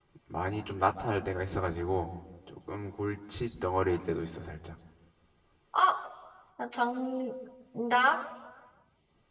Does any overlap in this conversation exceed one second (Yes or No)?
No